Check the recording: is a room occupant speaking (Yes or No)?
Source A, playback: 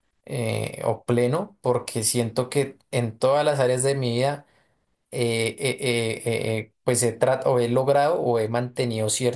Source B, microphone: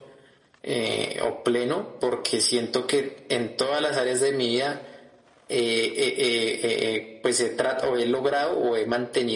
No